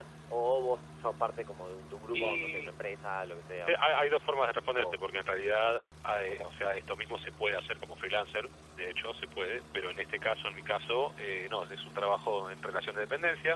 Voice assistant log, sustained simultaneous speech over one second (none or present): present